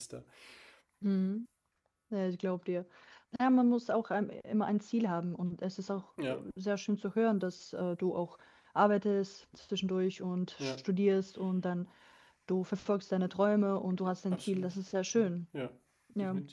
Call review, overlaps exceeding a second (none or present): none